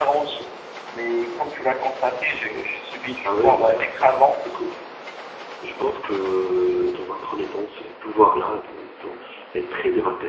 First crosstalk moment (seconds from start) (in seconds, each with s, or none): 3.2 s